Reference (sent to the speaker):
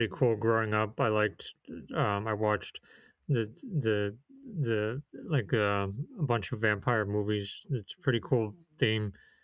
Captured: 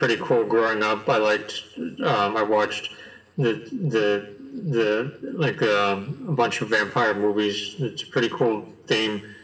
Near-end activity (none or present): none